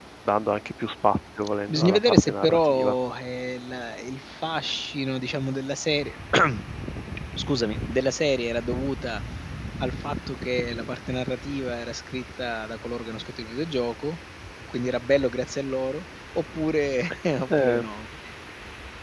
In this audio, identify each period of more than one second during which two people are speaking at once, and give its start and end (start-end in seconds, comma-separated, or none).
1.7-2.9